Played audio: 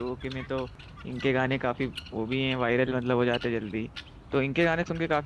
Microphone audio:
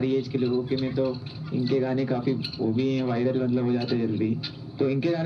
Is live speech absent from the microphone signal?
Yes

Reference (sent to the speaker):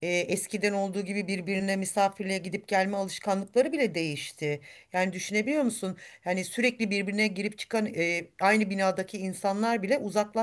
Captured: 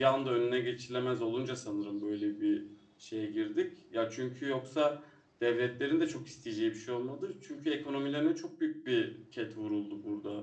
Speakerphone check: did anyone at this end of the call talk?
Yes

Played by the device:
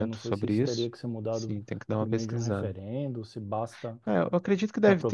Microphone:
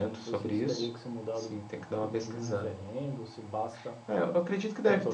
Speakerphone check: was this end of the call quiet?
Yes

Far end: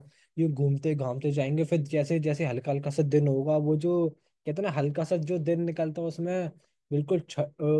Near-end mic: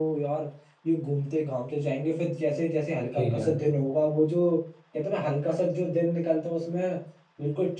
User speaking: Yes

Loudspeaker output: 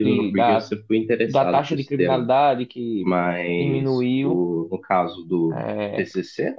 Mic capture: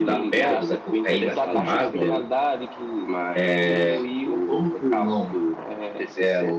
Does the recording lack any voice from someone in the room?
No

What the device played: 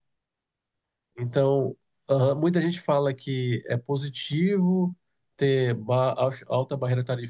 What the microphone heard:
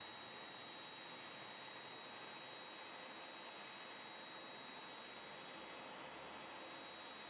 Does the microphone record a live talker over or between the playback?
No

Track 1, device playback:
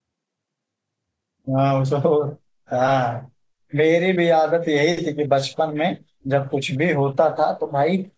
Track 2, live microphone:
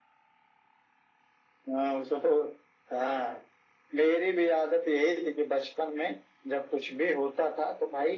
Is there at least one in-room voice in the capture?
No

